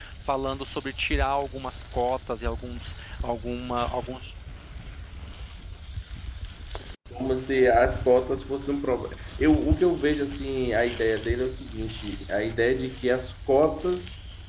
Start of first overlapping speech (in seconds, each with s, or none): none